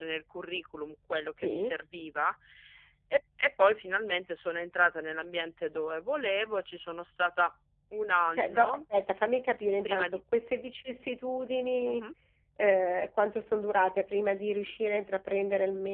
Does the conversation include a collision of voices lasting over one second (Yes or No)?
No